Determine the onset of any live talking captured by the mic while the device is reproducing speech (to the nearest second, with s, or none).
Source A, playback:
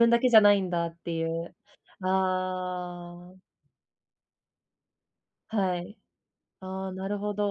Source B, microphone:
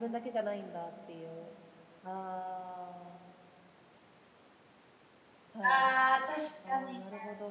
6 s